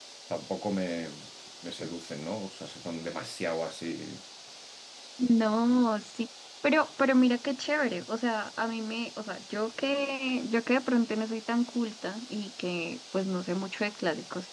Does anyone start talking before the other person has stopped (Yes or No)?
No